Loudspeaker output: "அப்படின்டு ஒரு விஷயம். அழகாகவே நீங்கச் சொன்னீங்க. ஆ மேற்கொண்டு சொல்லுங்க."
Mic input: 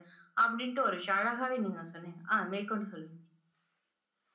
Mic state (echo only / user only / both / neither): echo only